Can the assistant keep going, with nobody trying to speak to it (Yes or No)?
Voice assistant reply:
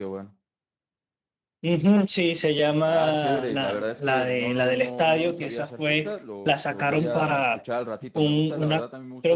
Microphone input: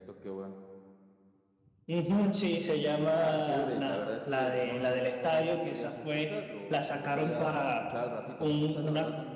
Yes